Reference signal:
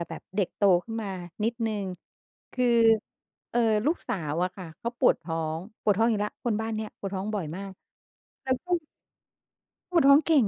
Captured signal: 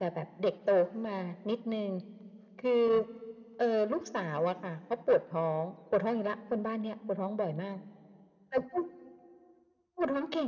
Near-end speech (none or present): none